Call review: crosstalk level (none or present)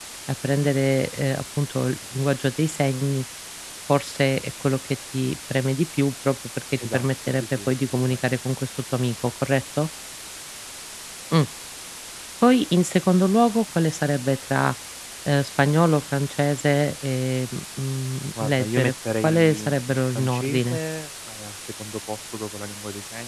present